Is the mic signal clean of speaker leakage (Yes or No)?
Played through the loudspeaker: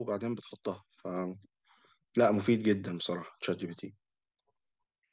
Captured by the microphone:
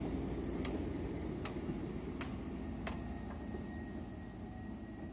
Yes